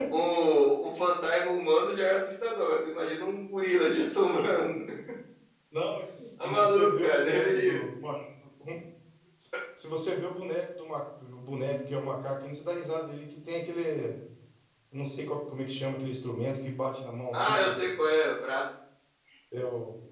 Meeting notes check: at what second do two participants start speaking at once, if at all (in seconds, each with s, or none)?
6.4 s